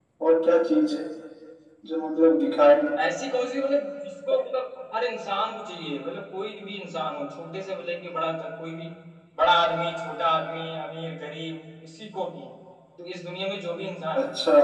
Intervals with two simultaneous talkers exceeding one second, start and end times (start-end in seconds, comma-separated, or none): none